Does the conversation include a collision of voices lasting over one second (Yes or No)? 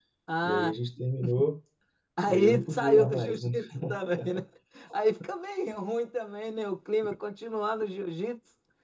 Yes